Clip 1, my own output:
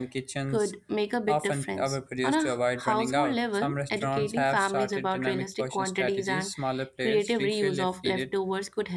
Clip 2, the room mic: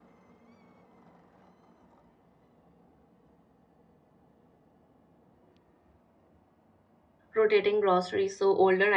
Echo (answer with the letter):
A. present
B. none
B